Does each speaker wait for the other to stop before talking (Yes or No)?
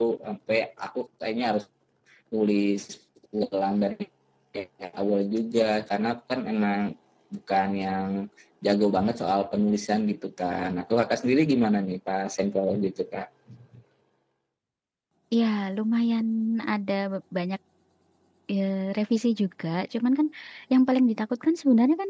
Yes